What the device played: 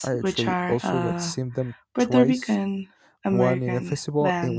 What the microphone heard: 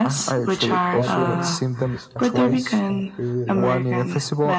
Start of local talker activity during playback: 0.7 s

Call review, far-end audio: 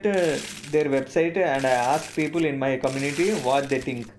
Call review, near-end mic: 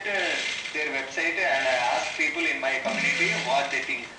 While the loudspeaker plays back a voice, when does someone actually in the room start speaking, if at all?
2.8 s

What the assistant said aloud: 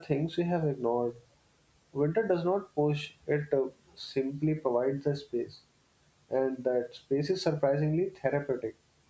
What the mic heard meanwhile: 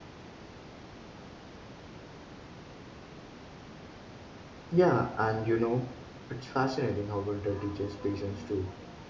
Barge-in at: 4.7 s

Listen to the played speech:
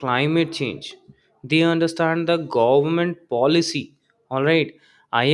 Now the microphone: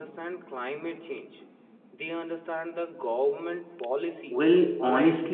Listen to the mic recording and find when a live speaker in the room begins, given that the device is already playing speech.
4.3 s

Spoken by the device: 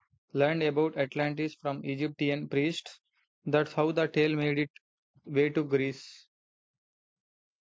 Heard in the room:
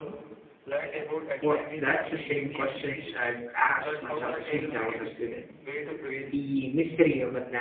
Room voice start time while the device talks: 1.4 s

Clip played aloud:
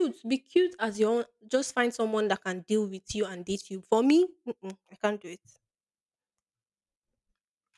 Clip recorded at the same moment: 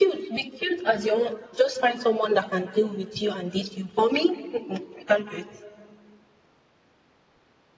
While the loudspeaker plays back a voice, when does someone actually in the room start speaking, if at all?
none

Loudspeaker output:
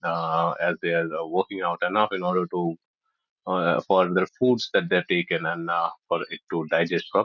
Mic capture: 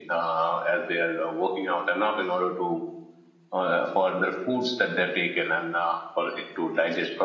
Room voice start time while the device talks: none

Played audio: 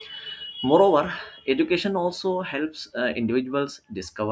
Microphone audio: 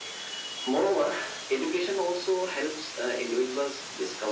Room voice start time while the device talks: none

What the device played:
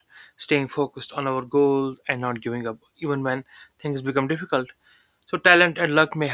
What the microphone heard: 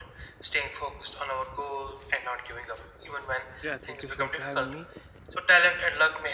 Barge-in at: 3.6 s

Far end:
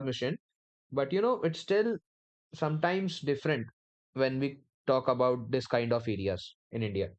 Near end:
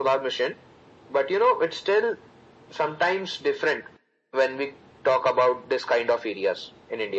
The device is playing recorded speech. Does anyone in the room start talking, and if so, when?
none

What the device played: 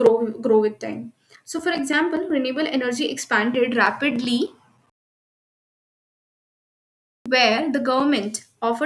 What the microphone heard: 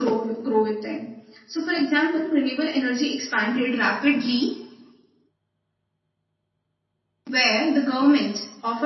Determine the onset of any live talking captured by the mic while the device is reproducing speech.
none

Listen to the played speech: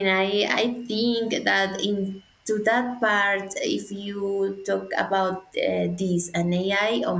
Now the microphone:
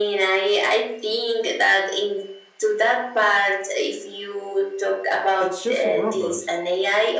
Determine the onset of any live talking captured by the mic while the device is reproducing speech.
5.4 s

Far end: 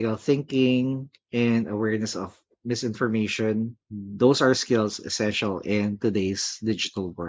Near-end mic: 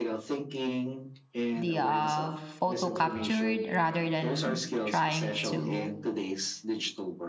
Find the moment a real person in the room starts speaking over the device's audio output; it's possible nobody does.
1.5 s

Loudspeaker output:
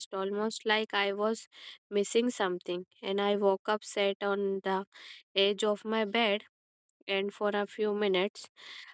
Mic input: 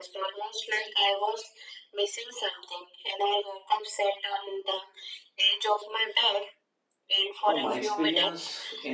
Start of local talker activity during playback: 7.4 s

